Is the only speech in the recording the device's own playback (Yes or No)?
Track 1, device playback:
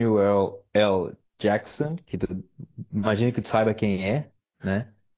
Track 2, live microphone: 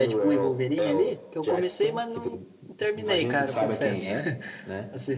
No